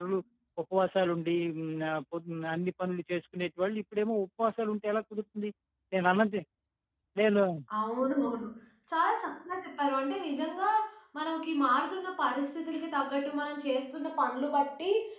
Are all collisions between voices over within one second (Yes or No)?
Yes